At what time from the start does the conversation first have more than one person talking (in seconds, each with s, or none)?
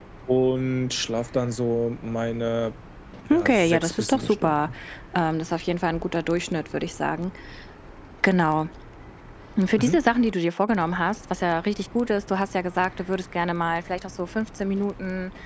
3.3 s